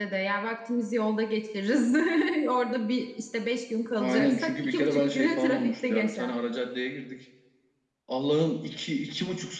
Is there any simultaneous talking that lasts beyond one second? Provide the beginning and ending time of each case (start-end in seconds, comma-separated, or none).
4.0-6.3